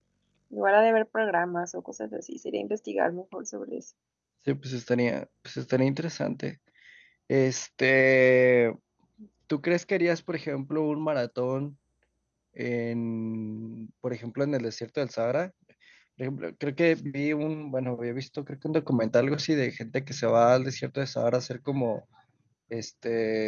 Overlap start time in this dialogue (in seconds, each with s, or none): none